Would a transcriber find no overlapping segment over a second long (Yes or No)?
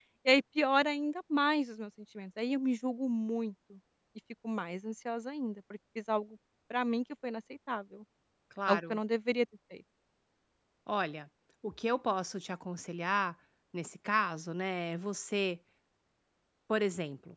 Yes